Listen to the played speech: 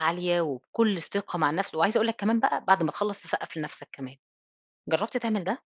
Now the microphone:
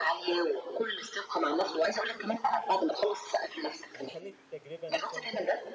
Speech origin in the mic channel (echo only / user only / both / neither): both